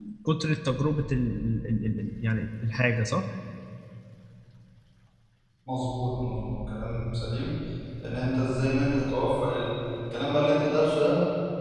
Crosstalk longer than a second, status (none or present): none